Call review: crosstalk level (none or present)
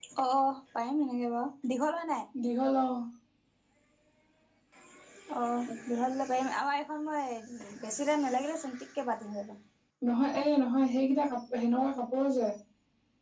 none